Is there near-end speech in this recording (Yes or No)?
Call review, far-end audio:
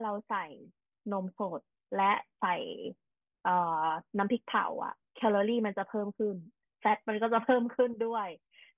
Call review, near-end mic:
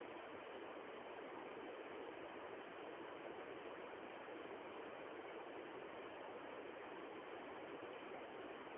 No